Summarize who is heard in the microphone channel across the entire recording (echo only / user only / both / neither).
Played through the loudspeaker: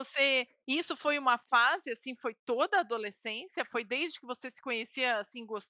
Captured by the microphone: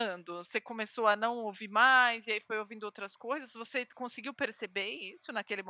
user only